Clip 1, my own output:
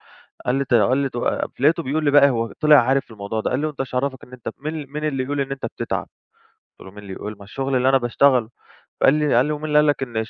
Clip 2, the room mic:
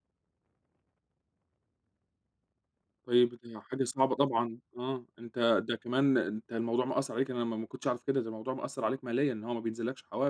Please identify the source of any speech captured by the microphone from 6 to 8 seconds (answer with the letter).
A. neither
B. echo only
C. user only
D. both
C